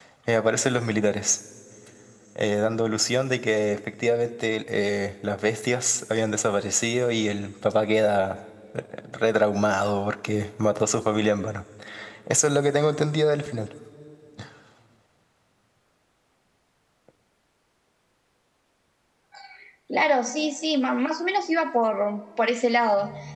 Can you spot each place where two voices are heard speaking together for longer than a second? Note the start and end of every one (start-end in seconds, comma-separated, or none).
none